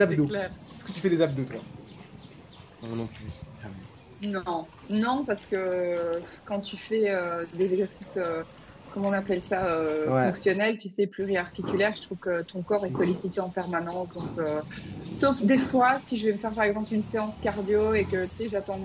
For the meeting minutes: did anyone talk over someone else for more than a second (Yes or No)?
No